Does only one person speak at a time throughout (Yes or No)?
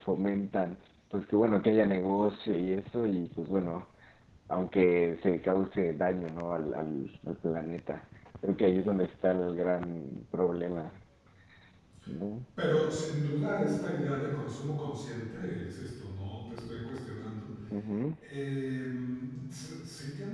Yes